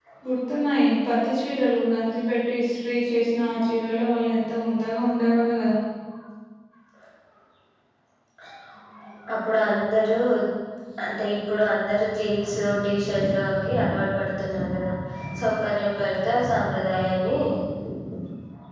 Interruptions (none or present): none